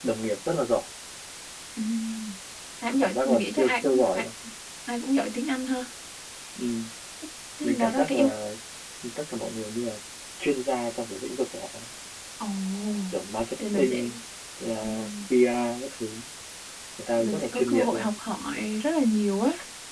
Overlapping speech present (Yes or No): Yes